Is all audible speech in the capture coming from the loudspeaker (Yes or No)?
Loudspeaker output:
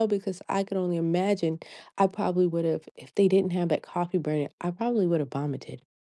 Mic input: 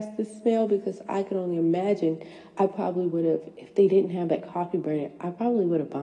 Yes